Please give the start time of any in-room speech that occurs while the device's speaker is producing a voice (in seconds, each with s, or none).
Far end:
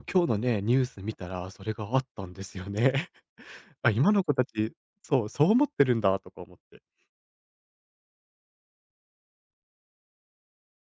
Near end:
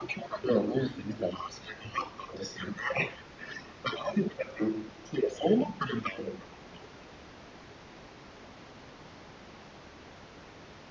none